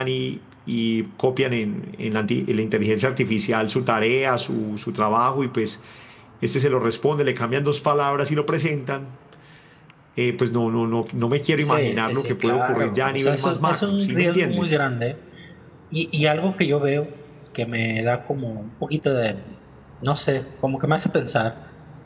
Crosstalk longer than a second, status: present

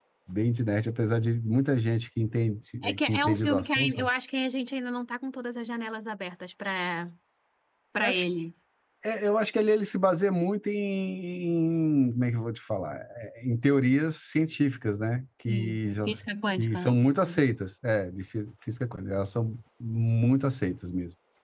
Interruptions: present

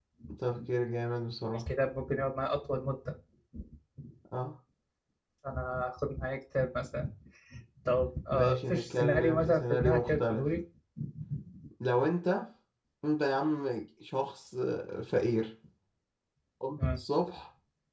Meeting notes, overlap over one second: present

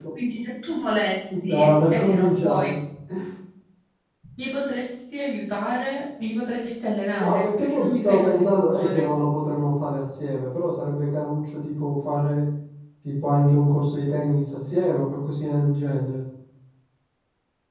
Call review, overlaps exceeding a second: present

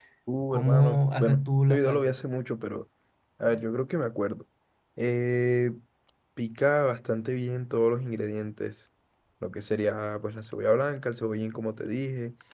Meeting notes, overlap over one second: present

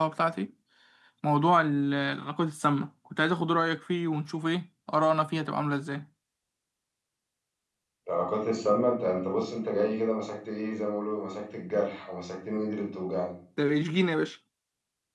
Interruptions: none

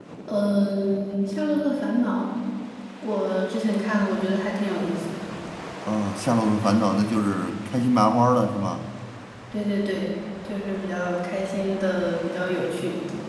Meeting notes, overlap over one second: none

